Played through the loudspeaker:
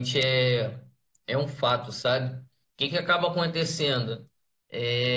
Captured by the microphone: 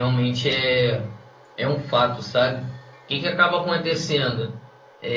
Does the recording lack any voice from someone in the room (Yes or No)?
Yes